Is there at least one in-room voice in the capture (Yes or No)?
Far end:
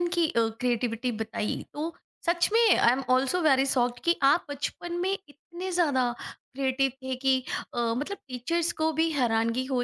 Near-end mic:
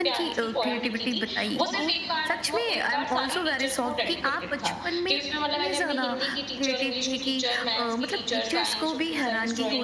Yes